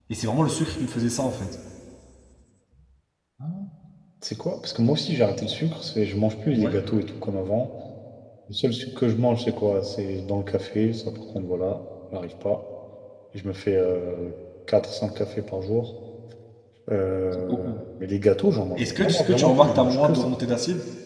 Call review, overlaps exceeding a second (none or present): present